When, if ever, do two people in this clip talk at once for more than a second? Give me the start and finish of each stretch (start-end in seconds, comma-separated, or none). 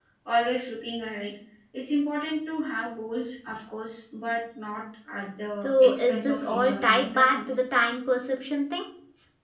5.6-7.4